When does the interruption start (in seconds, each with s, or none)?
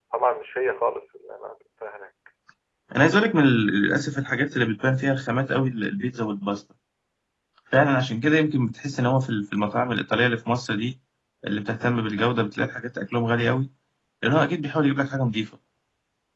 none